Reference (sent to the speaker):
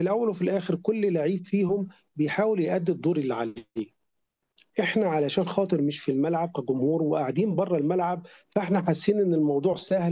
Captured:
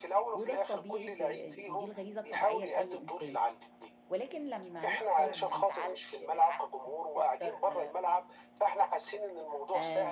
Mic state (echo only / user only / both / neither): both